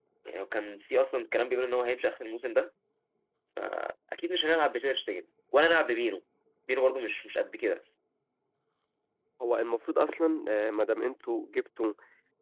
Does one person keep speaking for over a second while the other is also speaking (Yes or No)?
No